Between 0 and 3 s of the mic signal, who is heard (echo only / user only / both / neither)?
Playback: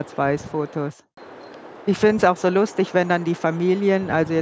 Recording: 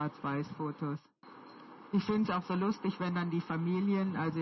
echo only